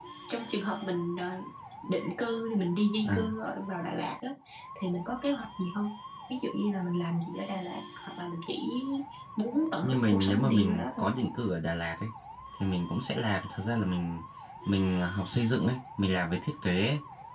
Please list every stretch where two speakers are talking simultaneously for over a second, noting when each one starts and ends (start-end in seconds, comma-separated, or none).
9.8-11.0